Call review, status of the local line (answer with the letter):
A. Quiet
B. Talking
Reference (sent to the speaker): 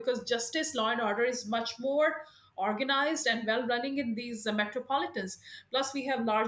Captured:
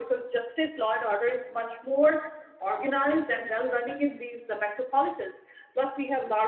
A